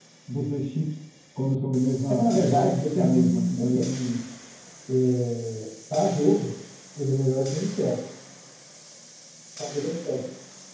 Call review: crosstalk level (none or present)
present